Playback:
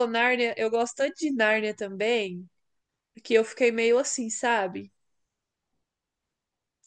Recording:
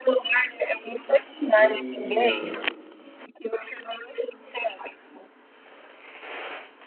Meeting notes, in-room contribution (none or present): present